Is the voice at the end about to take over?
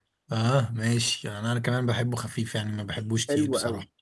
Yes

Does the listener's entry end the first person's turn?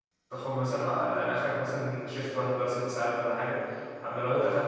No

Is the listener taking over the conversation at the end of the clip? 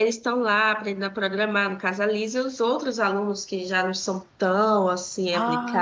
Yes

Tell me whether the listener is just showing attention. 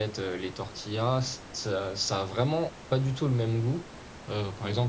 Yes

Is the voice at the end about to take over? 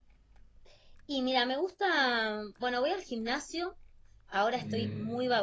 No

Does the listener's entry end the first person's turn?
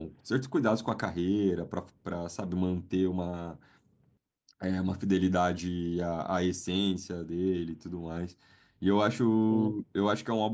No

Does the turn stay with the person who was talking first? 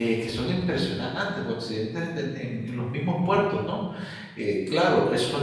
Yes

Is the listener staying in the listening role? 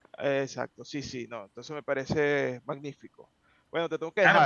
No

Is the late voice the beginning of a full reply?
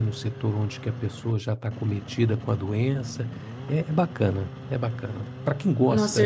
Yes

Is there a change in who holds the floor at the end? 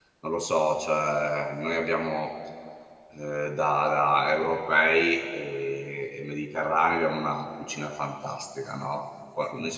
No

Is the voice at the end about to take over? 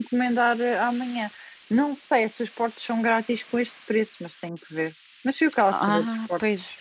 Yes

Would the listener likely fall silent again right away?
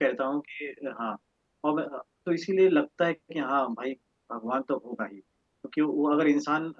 Yes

